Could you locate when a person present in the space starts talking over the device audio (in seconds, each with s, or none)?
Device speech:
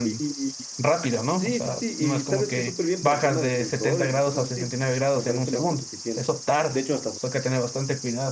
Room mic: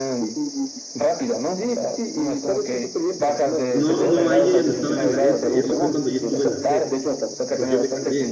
3.7 s